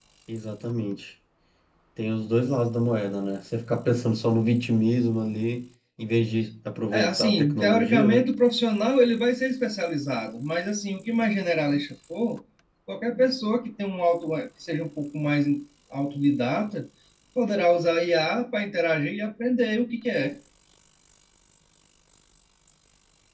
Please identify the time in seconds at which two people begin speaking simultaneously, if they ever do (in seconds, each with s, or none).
6.9 s